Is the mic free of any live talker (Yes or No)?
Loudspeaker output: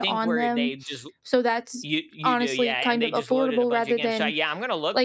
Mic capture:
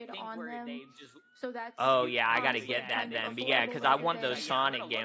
No